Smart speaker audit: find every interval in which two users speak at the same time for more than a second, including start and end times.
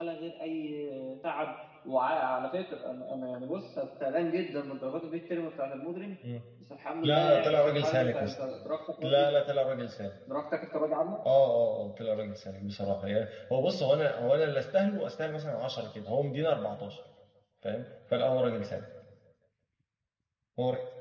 7.0-8.3

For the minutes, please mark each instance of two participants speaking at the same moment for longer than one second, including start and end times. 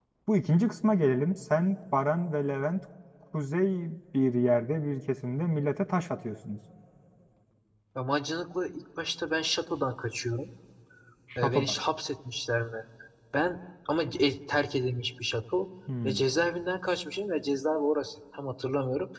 none

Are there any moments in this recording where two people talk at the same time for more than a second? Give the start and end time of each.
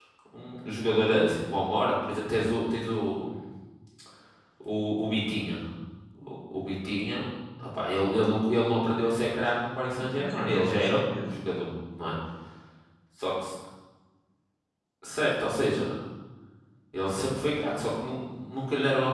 10.0-11.3

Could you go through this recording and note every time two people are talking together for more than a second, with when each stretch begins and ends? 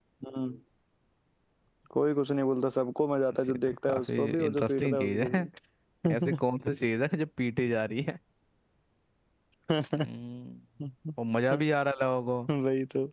3.5-5.5

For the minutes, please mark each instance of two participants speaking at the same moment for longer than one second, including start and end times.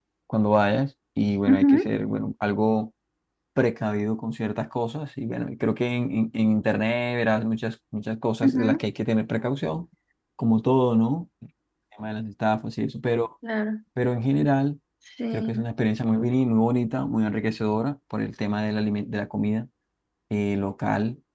none

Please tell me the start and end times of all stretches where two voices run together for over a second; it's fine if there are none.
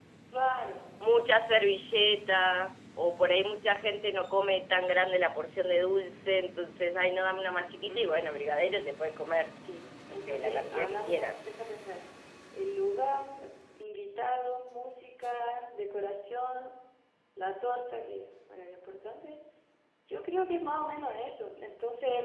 10.1-11.5

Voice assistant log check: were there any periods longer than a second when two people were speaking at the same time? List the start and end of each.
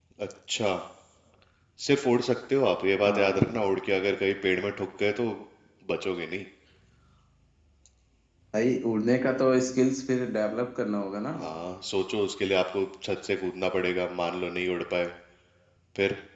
none

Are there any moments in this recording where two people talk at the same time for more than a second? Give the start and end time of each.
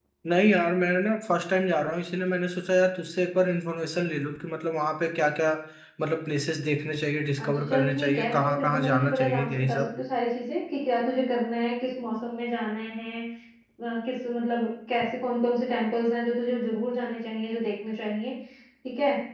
7.4-9.9

